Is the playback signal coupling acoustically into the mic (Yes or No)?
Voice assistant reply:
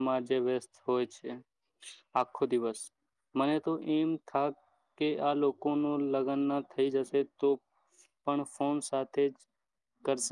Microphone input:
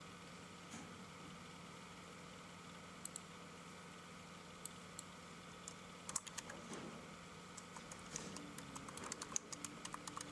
No